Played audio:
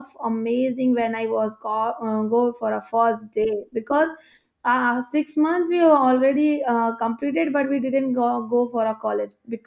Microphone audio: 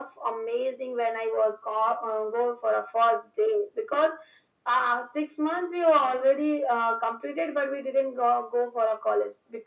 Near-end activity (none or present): none